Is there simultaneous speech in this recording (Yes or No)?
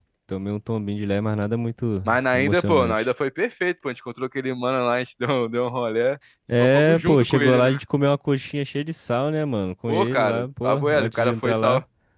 Yes